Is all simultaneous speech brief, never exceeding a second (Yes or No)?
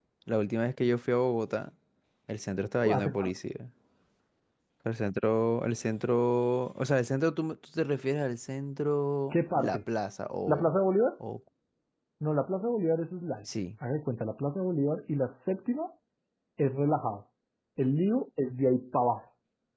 Yes